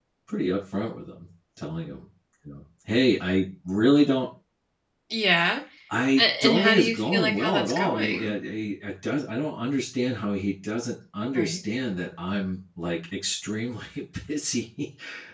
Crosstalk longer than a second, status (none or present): present